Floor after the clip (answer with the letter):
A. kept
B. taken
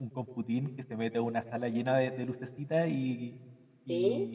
A